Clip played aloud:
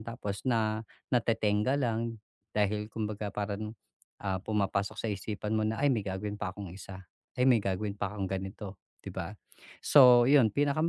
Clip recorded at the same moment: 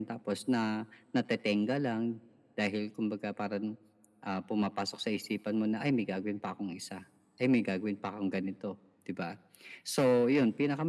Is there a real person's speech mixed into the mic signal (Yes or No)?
No